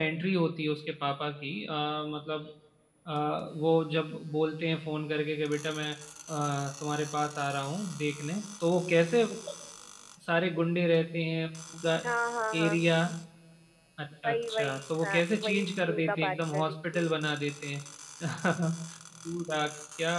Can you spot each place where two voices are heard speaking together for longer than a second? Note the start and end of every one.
14.2-17.1

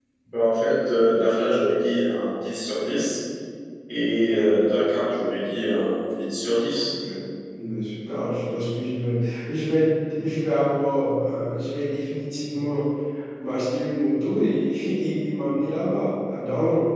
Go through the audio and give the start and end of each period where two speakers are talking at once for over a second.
none

